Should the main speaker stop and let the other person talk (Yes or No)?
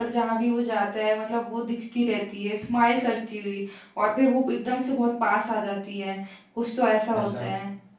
No